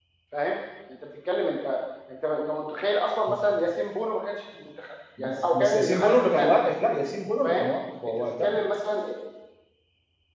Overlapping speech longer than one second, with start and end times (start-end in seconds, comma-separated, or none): 5.2-6.6